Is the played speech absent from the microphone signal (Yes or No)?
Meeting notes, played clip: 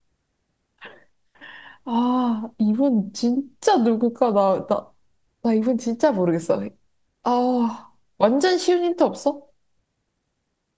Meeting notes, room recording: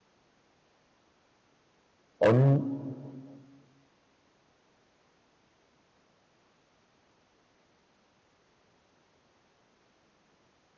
Yes